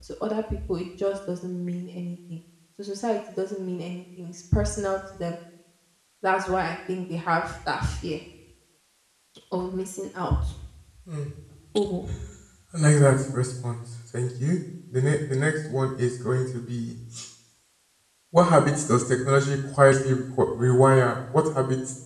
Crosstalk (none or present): none